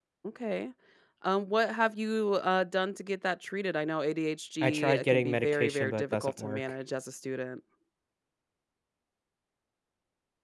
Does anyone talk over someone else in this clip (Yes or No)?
Yes